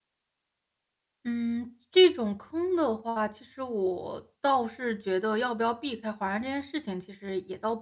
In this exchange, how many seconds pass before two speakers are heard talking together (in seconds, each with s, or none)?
none